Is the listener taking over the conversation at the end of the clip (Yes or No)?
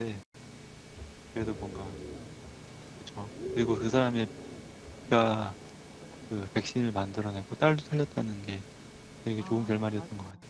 Yes